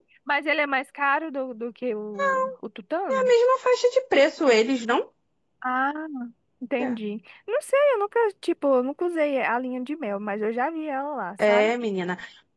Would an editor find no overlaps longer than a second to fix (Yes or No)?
Yes